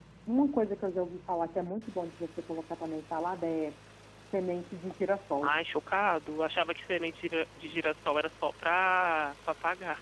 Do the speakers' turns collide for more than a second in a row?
No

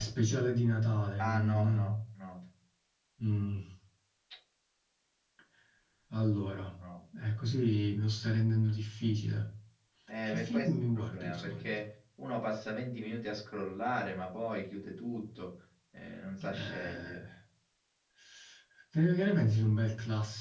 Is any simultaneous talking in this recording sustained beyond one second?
Yes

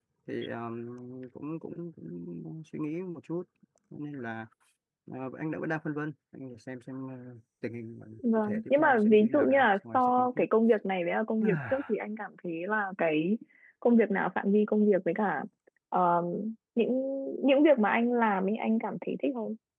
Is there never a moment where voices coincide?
No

